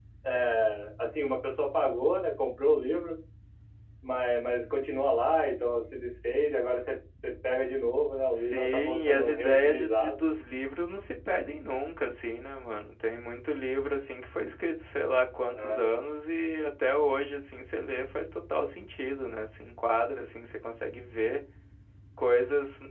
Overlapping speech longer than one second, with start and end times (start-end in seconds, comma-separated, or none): 8.4-10.2